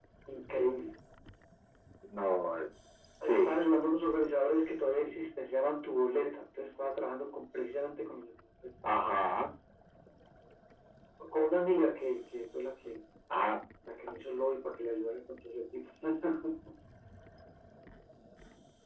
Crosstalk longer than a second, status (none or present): none